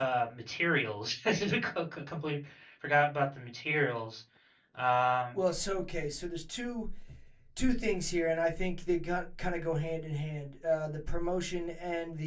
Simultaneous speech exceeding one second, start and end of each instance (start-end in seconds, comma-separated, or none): none